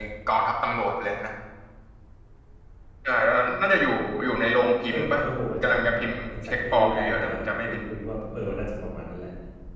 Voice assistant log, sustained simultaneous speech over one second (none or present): present